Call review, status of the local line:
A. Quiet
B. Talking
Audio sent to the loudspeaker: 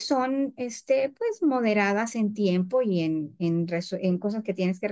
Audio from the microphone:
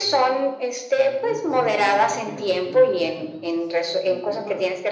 B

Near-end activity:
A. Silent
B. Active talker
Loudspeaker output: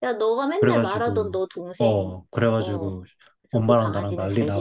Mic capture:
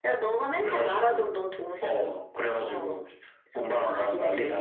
A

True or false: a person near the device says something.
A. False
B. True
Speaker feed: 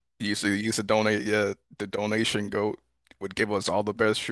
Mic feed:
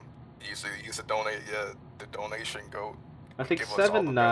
B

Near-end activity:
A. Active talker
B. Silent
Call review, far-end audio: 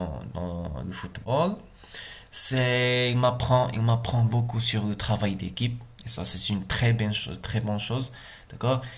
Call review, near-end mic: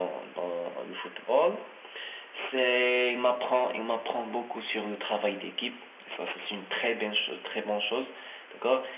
B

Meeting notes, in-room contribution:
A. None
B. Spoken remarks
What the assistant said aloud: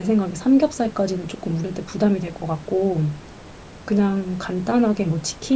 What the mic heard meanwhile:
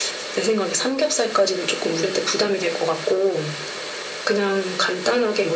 A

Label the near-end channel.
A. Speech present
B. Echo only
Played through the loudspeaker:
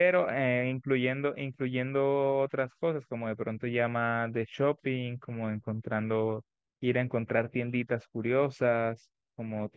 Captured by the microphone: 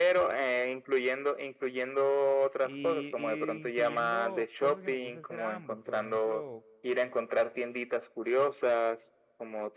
A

